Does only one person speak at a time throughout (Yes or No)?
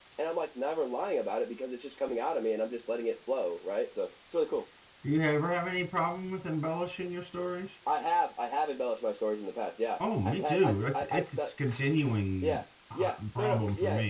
No